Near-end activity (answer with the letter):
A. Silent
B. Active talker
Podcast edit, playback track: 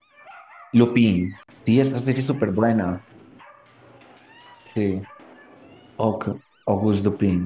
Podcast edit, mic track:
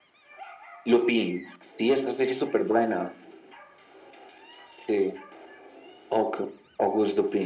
A